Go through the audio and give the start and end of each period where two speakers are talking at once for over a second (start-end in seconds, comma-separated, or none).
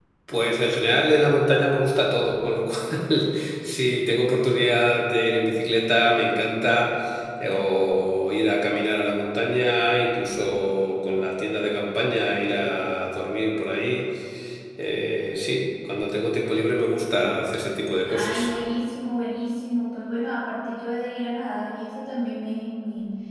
none